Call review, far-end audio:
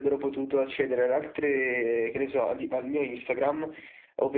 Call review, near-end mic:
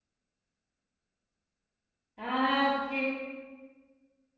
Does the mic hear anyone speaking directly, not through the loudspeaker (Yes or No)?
Yes